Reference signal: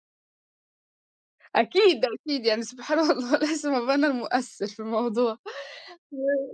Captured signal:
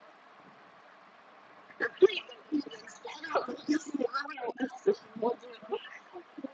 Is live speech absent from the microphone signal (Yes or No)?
Yes